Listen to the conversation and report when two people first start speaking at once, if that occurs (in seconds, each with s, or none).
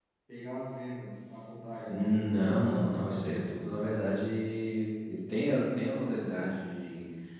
1.8 s